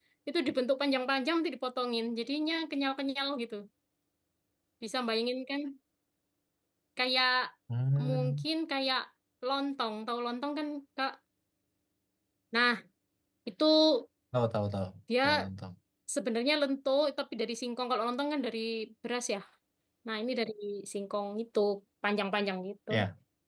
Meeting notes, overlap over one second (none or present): none